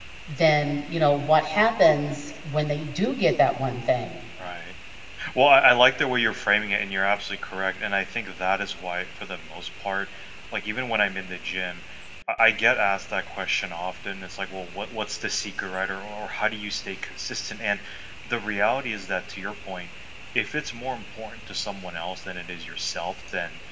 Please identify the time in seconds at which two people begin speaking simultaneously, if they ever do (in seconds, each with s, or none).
none